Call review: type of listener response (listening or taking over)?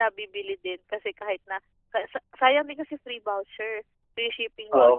taking over